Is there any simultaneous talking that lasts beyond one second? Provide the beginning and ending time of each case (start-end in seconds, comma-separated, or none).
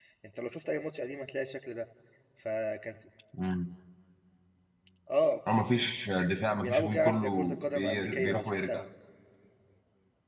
6.6-8.8